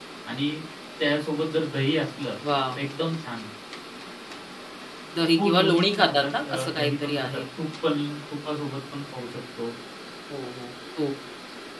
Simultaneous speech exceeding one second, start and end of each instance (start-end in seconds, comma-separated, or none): 5.4-7.4